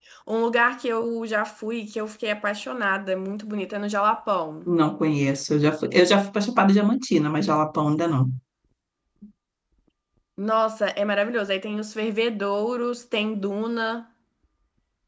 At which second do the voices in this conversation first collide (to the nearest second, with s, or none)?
none